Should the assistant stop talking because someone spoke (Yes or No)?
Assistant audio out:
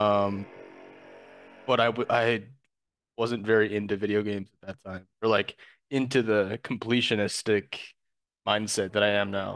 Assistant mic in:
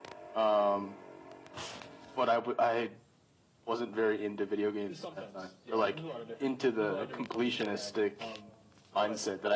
Yes